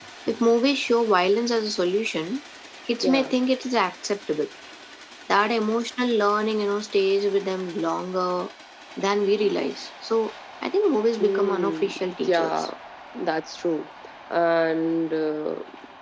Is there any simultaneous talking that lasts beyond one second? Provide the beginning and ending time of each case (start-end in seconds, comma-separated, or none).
11.2-12.7